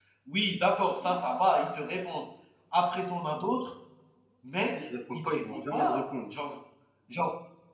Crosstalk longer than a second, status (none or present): present